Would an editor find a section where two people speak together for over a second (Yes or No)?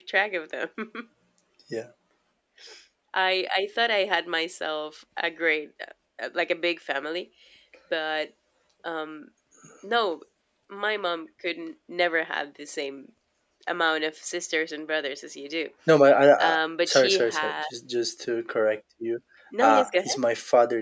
Yes